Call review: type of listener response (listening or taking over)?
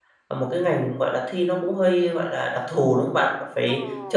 listening